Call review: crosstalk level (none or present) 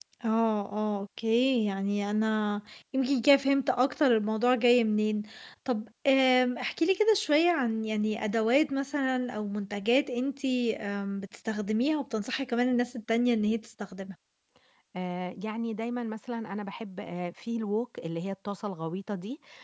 none